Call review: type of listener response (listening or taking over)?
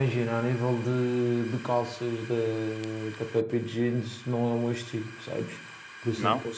listening